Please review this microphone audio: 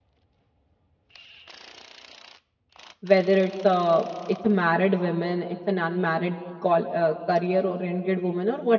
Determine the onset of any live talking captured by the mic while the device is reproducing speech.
3.0 s

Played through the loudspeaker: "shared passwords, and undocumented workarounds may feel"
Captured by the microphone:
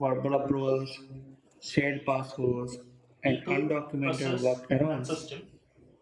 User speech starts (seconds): 3.2 s

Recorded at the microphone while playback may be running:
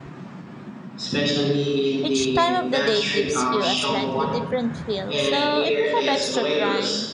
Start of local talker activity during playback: 2.0 s

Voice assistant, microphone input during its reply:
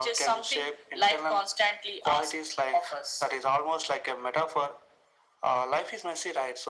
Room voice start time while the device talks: none

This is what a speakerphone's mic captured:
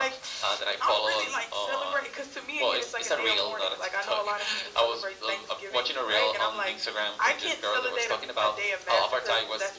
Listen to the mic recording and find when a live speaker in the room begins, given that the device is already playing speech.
none

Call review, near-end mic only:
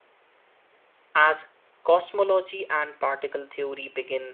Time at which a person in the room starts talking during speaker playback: 1.1 s

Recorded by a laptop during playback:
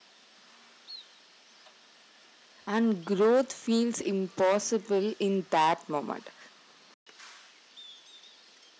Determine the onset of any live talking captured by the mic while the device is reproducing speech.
2.7 s

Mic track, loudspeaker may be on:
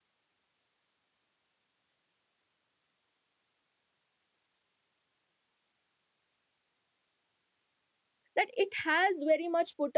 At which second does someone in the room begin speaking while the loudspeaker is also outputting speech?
8.4 s

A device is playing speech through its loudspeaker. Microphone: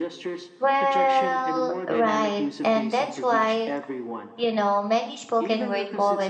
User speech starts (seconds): 0.6 s

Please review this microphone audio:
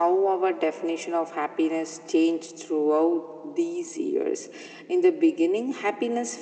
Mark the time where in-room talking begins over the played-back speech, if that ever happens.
none

